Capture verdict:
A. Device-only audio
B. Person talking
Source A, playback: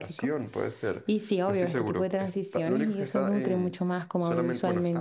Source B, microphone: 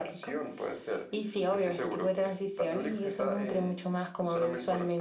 A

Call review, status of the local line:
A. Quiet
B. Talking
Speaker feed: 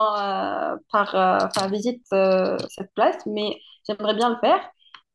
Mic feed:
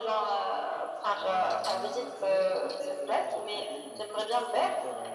B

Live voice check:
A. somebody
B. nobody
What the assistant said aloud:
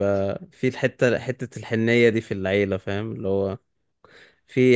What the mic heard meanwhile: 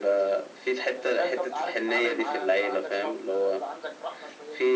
A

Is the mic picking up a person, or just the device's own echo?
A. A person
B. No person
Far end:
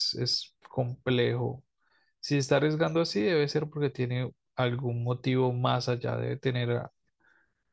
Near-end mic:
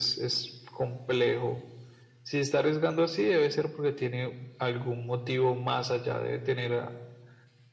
B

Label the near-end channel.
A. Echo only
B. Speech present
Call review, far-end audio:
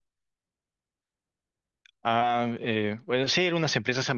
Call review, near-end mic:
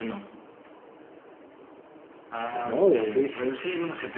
B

